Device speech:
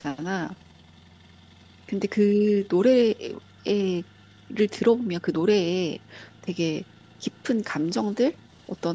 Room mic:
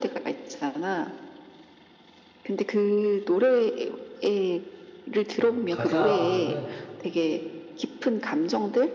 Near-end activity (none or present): present